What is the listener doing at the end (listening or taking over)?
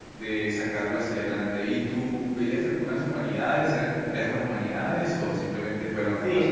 taking over